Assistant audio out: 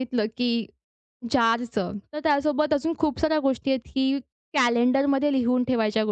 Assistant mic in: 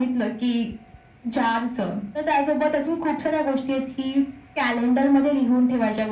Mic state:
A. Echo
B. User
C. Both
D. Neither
A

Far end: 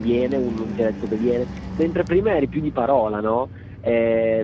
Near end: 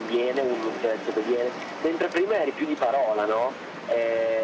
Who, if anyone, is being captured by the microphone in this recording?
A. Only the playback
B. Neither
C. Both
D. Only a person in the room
A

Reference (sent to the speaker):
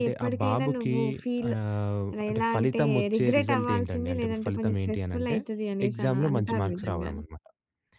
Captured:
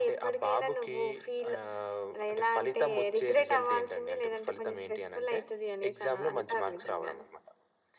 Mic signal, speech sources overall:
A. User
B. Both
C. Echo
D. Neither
C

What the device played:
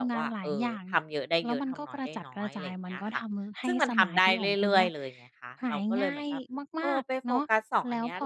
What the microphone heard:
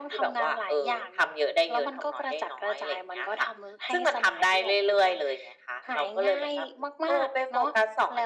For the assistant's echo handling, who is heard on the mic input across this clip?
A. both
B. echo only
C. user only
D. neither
B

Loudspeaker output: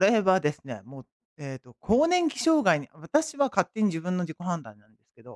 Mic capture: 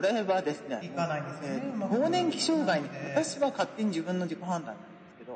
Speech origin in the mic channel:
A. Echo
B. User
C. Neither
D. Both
D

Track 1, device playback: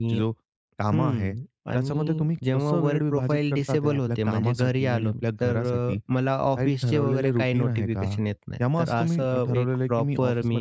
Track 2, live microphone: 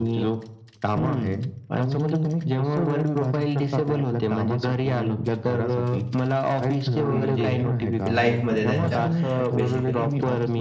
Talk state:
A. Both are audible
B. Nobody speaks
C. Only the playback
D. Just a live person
A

